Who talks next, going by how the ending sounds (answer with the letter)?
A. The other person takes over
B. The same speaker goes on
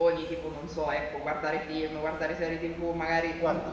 B